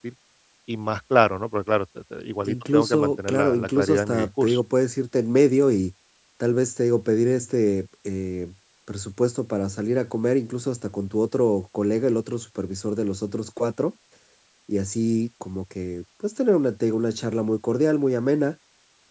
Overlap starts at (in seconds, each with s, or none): 2.4 s